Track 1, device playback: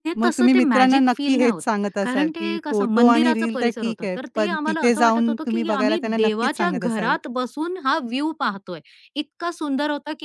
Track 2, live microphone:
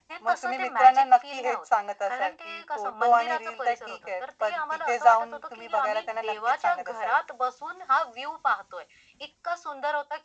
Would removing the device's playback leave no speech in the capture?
Yes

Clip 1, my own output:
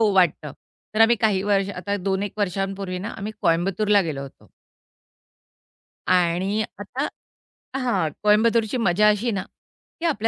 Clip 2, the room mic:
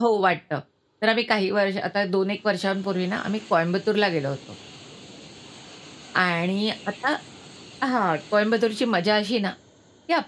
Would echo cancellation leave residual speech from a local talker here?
No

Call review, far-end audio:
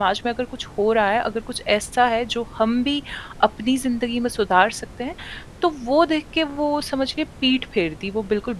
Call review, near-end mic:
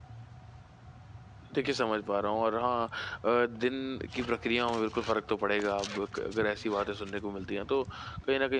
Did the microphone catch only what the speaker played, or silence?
No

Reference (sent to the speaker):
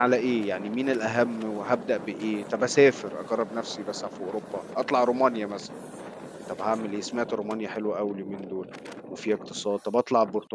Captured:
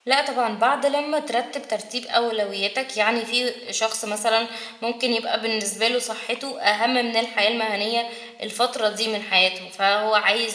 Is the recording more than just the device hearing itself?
Yes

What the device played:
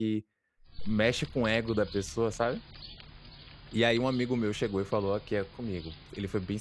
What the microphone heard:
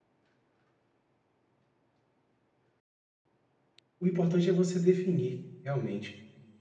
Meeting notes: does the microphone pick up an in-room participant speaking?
Yes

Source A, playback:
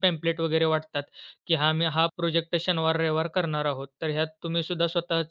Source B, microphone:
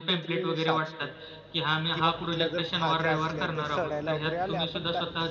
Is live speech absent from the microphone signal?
No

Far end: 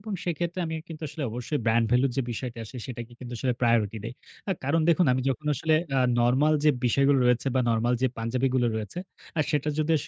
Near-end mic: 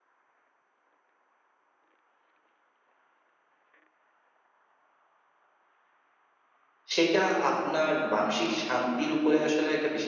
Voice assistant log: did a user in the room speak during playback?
Yes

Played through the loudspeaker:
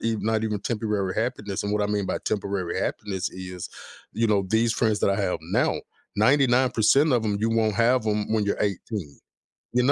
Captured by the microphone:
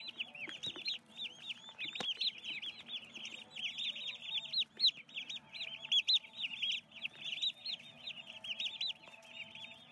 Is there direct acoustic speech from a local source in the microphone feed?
No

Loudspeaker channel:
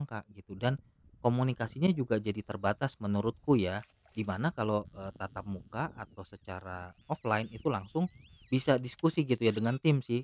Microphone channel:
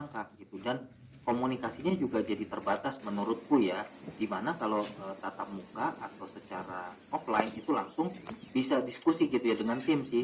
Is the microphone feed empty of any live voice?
Yes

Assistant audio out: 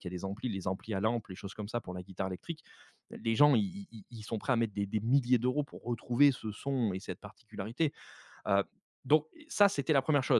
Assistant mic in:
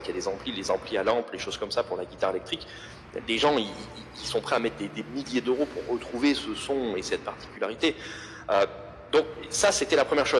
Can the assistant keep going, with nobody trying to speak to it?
Yes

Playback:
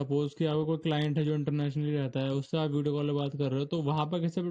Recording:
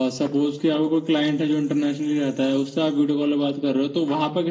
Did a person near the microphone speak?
No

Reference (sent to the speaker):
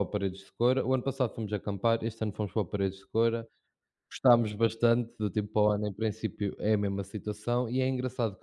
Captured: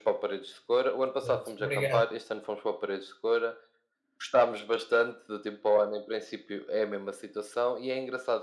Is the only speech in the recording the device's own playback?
No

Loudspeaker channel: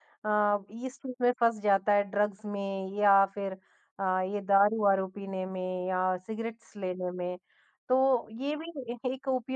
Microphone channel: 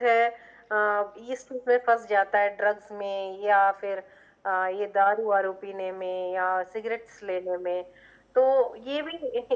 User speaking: No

